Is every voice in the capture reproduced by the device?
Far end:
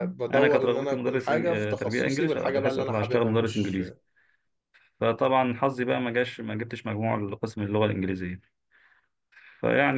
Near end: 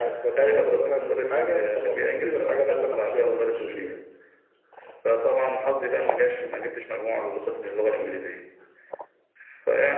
Yes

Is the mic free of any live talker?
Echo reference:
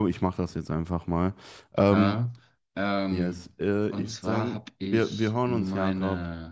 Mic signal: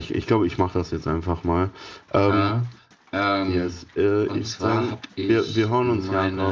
Yes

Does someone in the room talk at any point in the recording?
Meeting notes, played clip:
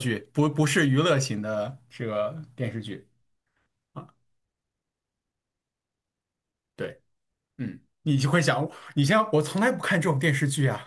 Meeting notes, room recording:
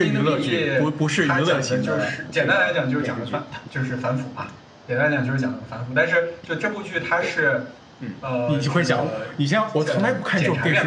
Yes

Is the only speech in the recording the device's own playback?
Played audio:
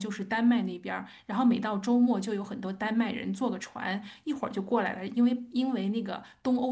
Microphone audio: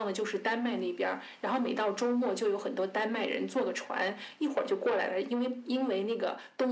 Yes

